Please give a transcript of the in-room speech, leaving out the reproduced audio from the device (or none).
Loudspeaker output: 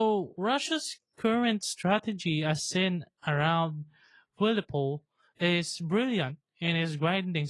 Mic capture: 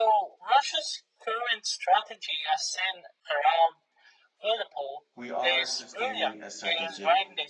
We are sustaining a strategic